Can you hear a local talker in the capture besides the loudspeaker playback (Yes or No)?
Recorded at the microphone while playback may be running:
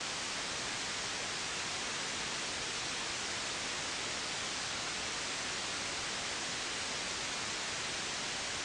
No